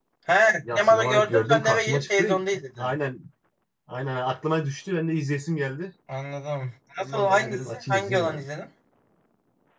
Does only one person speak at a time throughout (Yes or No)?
No